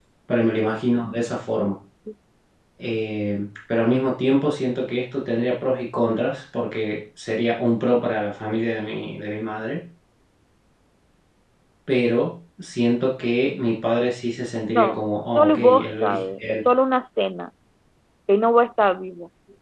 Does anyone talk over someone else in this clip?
Yes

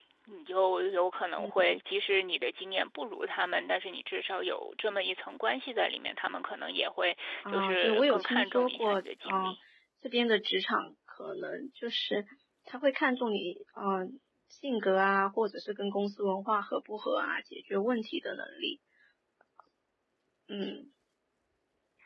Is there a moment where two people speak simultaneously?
Yes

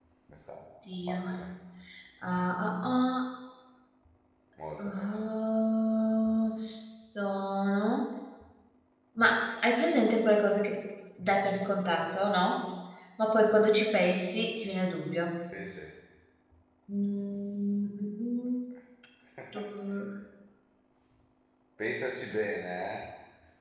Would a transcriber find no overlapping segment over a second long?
Yes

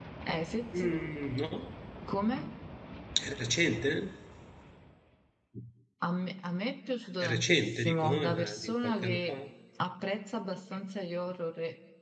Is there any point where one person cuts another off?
Yes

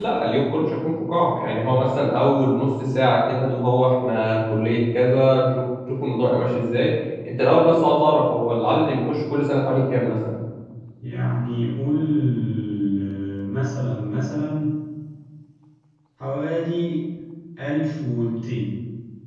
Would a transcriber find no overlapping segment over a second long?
Yes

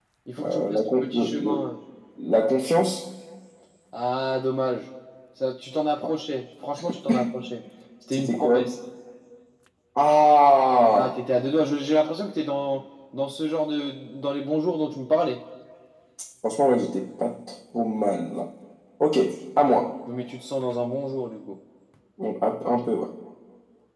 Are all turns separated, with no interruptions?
No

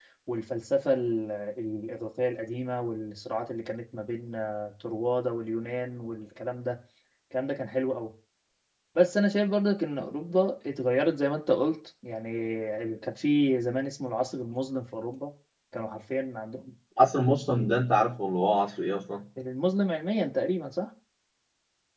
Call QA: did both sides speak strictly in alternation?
Yes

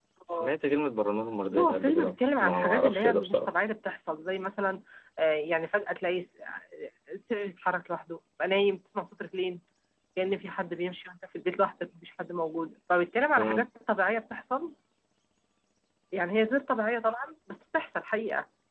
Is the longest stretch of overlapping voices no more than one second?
No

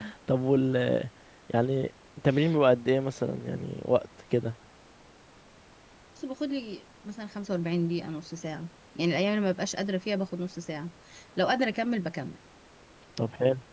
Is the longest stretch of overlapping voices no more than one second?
Yes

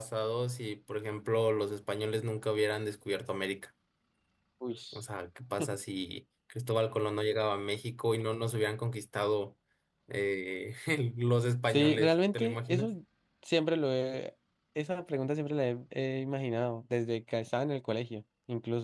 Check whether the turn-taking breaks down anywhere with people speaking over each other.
Yes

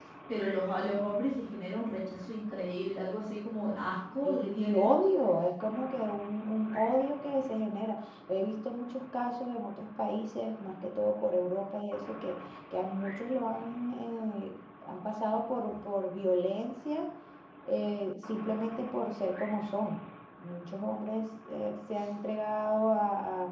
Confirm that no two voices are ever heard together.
No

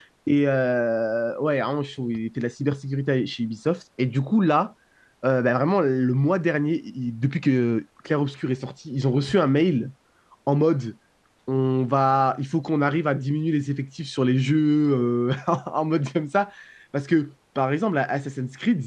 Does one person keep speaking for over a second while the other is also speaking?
No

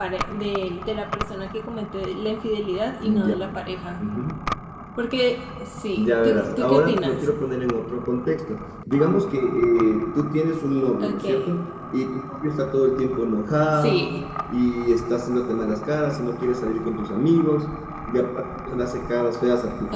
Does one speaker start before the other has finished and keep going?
Yes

